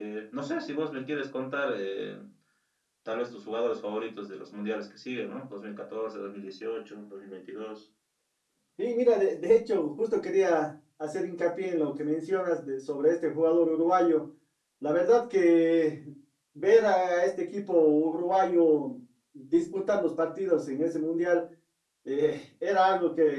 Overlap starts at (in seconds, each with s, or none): none